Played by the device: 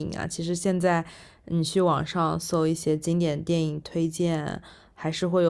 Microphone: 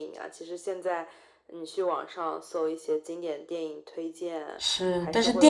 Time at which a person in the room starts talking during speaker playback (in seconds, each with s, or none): 4.6 s